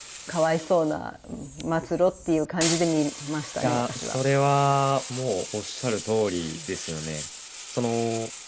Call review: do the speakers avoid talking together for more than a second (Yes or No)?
Yes